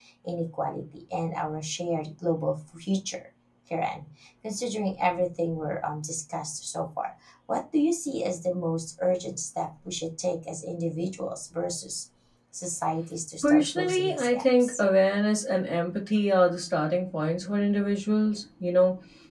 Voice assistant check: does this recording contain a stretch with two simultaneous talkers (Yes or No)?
Yes